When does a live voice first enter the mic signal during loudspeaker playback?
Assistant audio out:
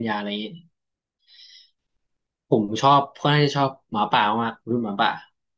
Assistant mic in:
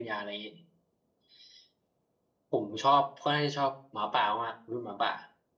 none

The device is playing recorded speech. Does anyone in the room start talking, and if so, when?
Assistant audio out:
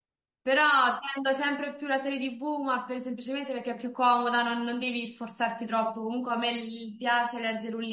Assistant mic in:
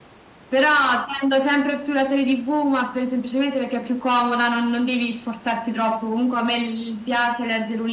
none

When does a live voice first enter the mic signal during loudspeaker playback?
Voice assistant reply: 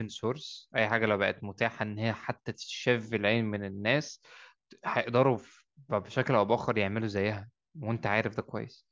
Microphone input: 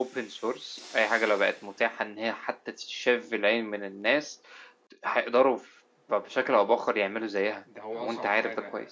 7.6 s

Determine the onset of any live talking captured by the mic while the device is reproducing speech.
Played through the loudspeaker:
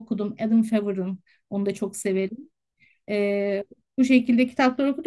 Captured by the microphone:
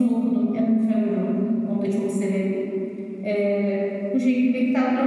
none

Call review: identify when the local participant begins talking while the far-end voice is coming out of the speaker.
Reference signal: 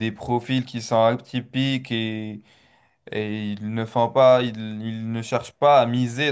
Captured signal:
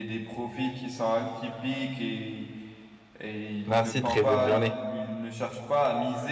3.6 s

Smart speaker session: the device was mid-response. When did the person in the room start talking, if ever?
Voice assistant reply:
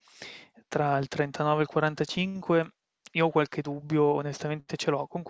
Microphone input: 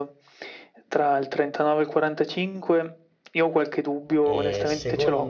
4.2 s

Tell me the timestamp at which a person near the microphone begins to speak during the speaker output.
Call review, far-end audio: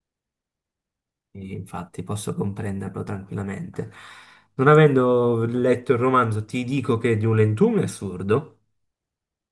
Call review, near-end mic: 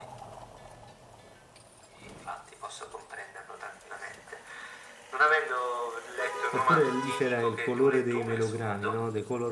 6.5 s

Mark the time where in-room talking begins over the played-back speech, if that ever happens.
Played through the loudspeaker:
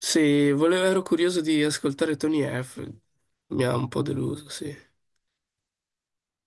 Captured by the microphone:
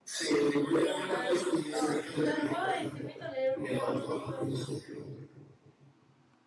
0.8 s

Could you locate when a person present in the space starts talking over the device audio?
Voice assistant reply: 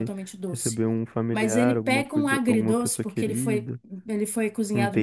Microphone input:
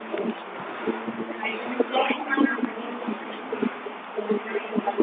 none

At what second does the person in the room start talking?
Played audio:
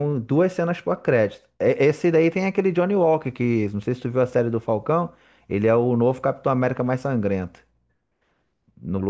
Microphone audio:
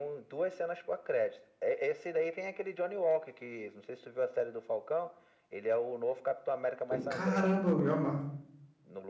6.9 s

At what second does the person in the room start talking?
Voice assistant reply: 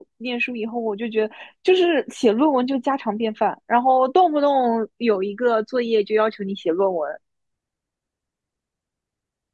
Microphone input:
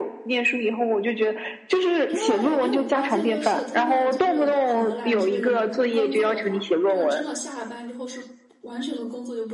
2.1 s

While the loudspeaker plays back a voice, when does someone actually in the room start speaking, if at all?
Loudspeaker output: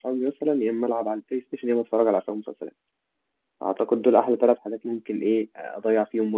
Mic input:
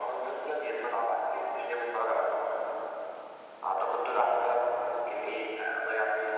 none

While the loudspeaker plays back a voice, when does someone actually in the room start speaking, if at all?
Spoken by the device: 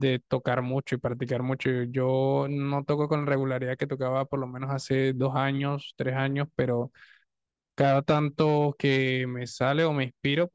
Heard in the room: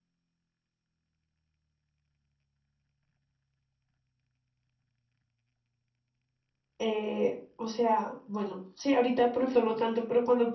6.8 s

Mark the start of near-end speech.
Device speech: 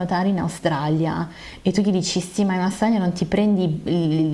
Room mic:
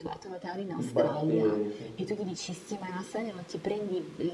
0.7 s

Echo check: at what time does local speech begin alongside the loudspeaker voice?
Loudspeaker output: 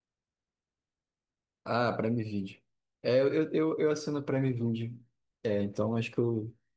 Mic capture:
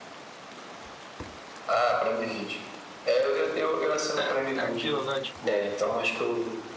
4.2 s

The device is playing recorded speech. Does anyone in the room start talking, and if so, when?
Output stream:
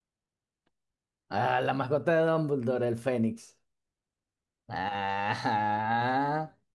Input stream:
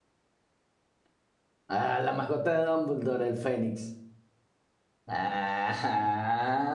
none

